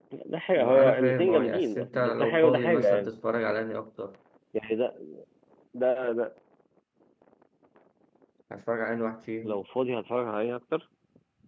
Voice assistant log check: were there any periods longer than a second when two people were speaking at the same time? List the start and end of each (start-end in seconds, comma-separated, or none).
0.5-3.1